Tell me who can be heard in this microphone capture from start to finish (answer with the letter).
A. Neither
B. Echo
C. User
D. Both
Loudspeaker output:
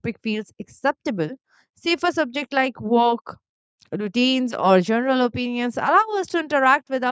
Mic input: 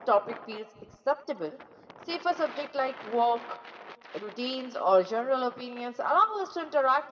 B